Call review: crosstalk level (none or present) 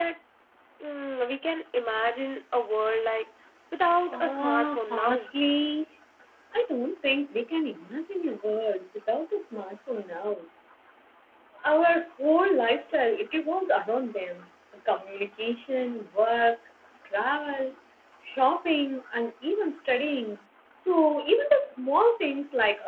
present